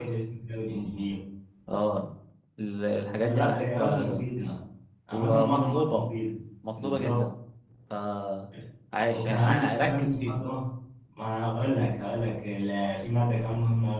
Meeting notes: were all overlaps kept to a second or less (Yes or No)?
No